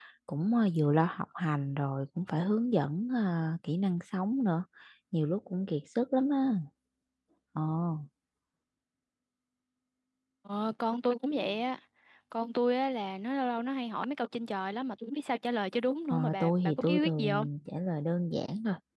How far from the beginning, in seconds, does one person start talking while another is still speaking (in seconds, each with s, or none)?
16.1 s